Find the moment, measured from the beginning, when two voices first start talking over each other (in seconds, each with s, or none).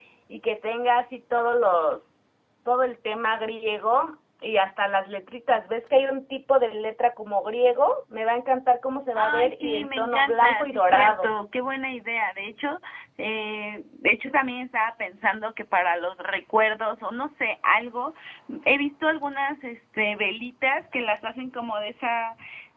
9.2 s